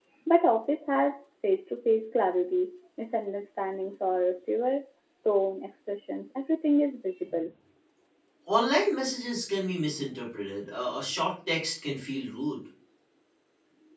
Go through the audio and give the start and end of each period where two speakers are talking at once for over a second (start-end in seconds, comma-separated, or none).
none